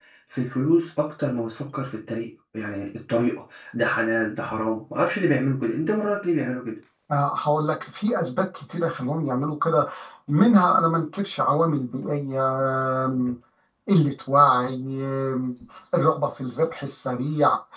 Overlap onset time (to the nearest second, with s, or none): none